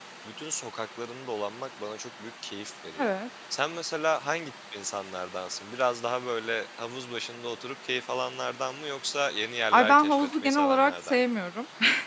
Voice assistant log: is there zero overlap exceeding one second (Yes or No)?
No